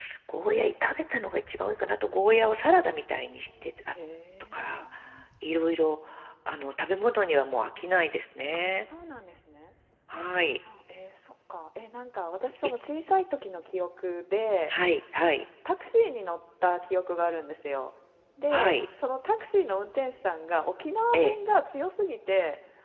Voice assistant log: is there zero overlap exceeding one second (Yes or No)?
Yes